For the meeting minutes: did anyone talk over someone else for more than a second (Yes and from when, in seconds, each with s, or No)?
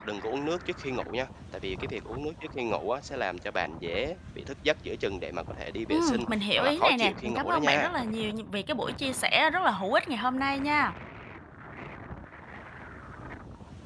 Yes, from 5.9 s